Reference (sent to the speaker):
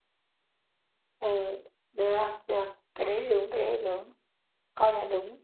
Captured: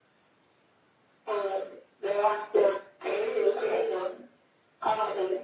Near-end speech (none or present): none